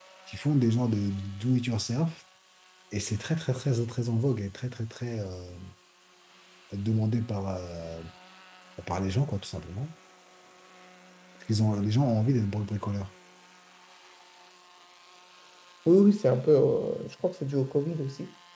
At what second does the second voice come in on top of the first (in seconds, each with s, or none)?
none